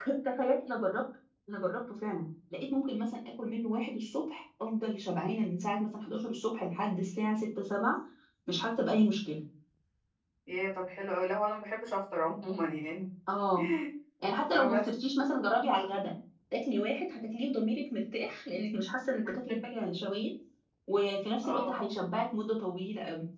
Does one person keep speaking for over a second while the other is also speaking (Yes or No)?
No